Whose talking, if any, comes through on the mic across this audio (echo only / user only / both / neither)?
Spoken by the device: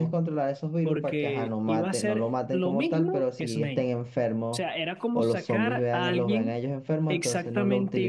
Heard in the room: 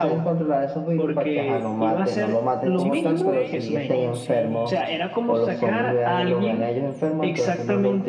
both